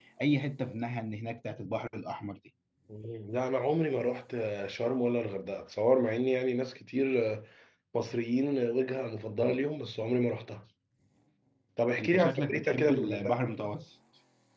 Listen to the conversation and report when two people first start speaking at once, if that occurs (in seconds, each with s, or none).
12.0 s